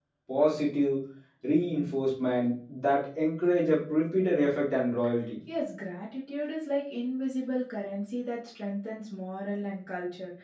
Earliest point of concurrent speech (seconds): none

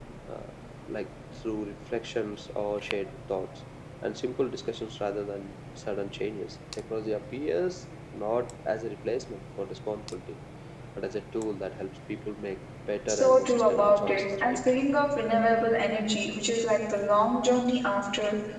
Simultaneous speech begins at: 13.1 s

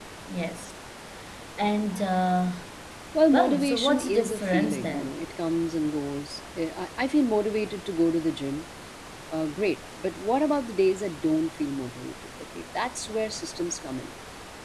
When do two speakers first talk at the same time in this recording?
3.3 s

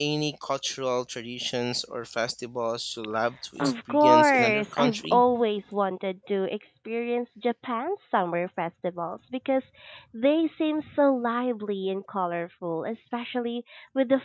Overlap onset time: 3.6 s

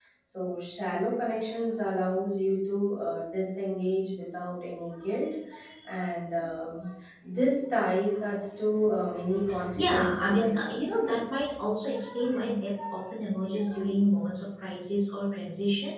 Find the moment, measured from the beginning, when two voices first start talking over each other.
9.8 s

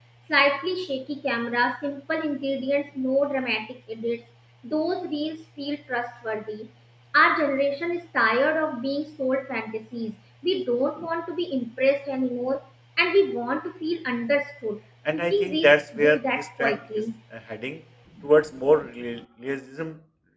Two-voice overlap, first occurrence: 15.1 s

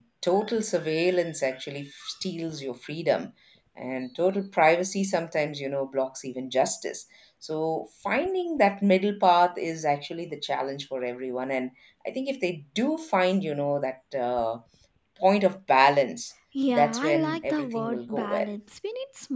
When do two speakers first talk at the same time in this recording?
16.8 s

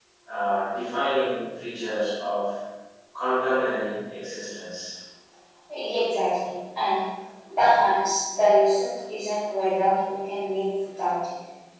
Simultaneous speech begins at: none

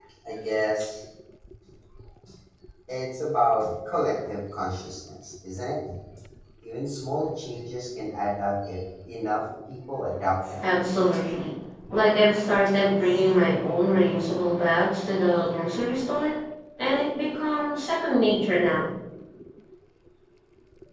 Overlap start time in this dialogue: none

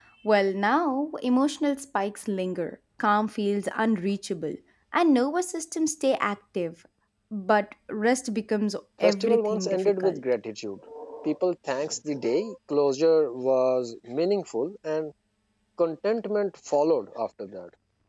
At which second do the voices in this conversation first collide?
9.0 s

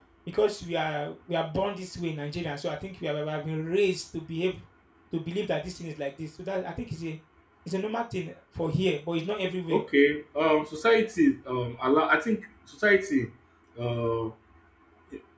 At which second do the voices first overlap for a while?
none

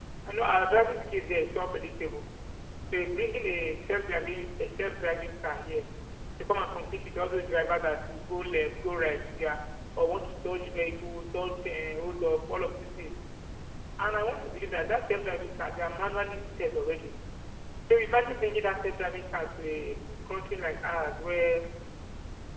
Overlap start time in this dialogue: none

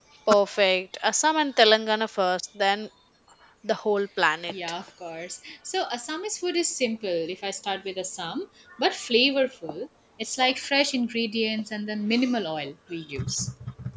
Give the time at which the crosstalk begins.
none

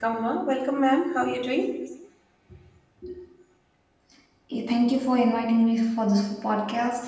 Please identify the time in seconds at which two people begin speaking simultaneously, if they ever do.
none

